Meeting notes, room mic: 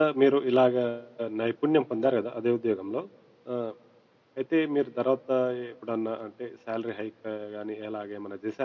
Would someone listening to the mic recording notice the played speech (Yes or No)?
No